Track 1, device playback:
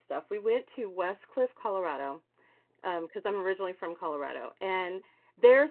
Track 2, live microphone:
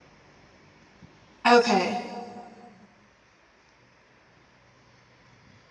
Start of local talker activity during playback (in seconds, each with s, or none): 1.4 s